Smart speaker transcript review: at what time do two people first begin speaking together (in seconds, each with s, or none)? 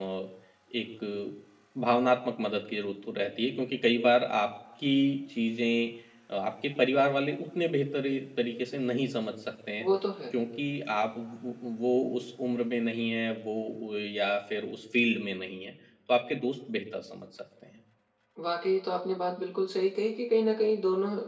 none